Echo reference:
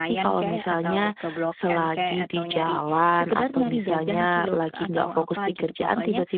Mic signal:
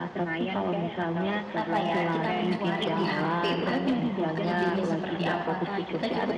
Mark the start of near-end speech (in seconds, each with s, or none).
1.5 s